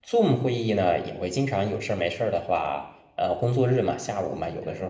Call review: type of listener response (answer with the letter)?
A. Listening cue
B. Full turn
A